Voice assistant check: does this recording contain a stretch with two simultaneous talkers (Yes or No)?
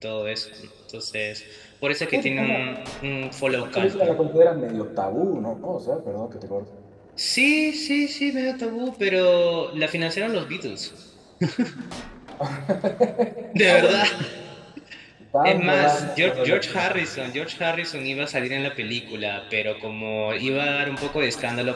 Yes